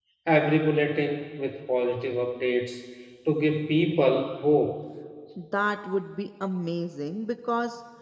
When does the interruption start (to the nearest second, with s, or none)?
none